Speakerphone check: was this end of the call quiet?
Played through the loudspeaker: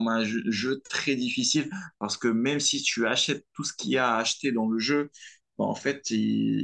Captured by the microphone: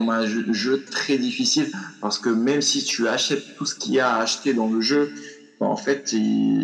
Yes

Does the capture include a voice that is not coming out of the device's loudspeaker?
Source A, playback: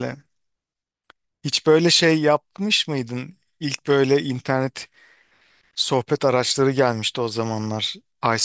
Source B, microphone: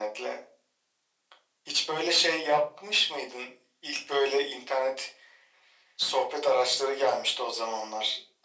No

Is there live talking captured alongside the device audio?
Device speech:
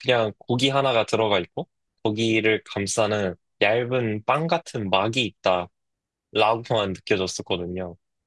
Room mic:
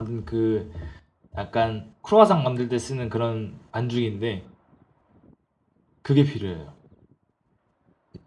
Yes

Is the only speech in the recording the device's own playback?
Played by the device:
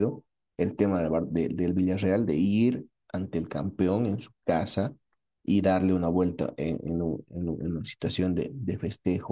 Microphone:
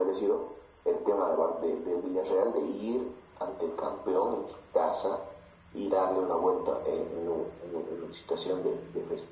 Yes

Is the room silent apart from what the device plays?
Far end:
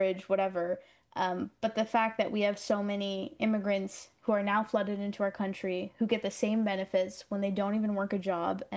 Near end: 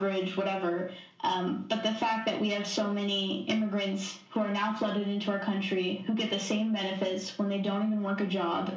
Yes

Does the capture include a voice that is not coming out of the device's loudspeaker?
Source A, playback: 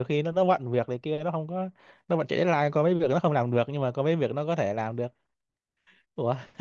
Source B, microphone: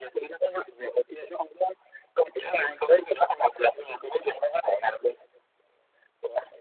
No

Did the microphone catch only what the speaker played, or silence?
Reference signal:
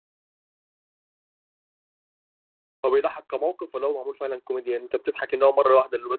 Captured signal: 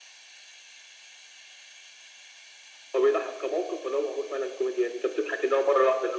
Yes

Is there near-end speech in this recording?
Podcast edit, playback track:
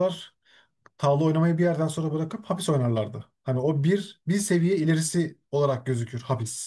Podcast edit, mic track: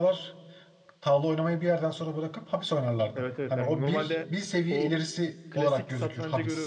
Yes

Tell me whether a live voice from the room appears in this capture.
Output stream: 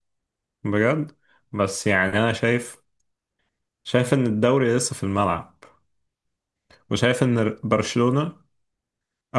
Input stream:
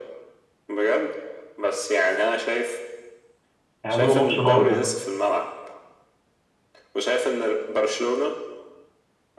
Yes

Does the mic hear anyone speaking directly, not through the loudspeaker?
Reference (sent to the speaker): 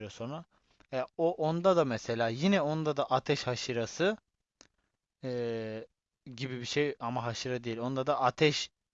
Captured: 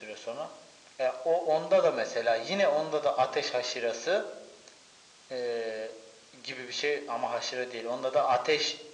No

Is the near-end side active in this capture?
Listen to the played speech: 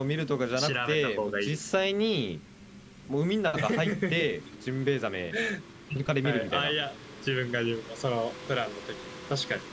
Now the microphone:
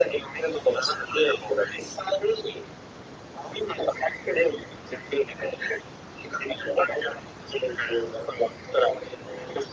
No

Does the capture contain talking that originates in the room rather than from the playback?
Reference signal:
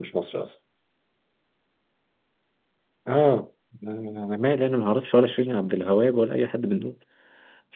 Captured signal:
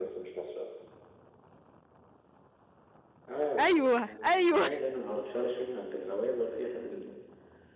Yes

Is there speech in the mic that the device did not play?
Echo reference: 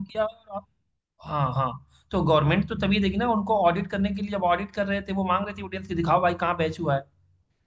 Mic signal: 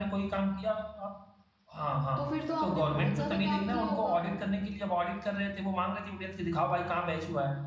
Yes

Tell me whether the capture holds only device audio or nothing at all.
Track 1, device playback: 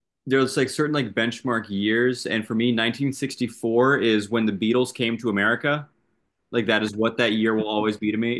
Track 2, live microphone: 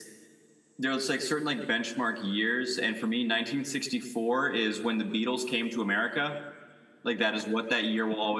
Yes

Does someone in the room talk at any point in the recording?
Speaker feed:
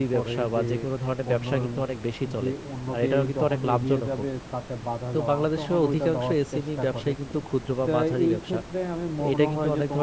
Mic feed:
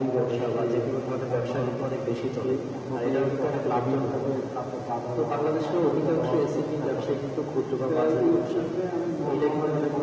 No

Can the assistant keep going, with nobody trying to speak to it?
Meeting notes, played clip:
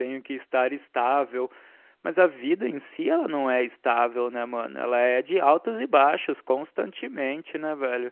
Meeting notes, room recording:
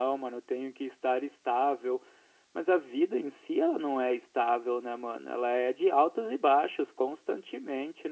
Yes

